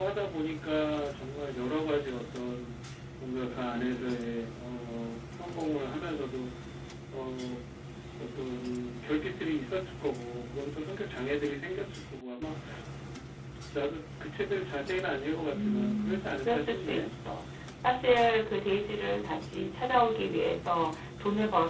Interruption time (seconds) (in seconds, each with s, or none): 15.5 s